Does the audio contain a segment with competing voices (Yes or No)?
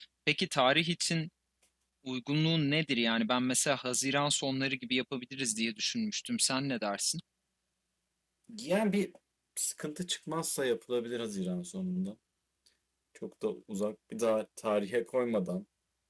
No